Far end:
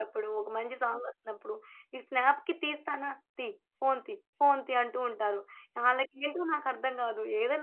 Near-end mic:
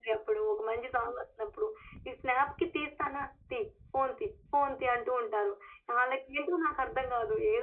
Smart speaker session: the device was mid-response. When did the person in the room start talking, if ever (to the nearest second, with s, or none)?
none